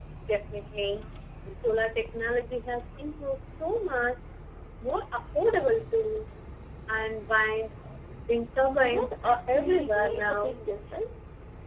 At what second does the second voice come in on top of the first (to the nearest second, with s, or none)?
9 s